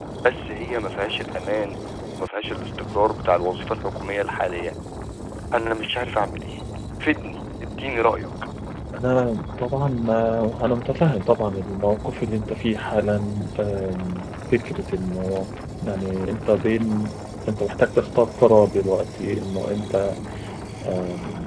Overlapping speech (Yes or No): No